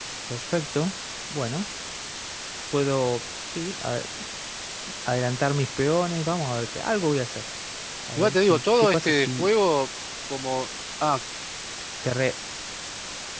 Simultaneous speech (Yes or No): Yes